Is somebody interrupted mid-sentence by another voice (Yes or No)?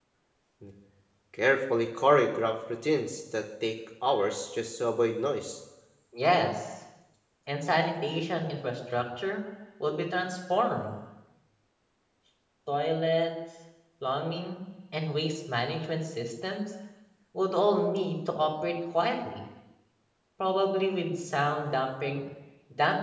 No